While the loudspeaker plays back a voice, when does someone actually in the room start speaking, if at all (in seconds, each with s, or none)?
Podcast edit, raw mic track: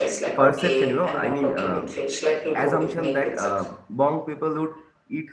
0.4 s